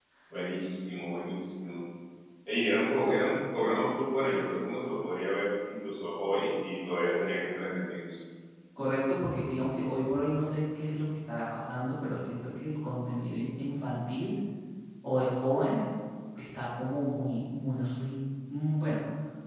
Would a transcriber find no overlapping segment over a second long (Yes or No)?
Yes